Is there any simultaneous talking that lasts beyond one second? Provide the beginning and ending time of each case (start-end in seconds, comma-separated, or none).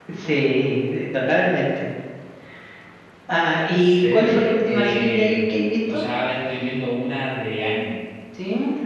3.8-5.4